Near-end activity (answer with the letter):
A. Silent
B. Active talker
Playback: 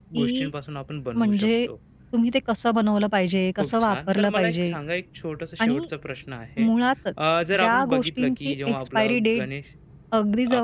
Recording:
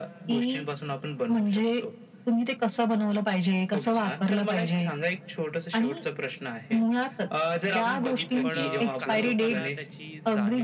B